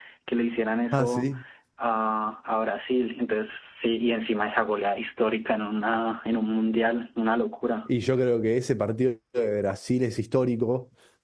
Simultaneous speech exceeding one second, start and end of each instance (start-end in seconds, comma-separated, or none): none